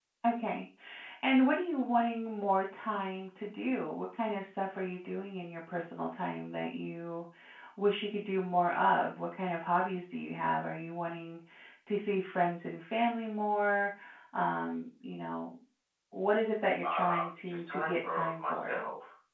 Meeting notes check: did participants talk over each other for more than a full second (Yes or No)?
Yes